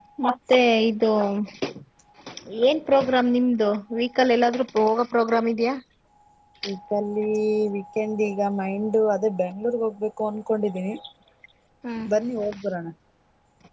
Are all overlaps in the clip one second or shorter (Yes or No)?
Yes